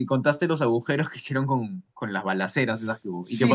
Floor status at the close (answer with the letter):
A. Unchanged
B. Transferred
B